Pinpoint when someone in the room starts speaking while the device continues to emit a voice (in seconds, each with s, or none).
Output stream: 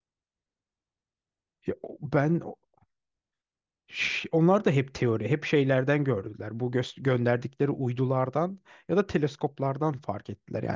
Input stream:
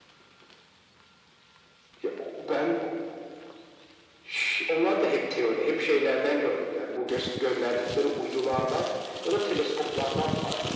none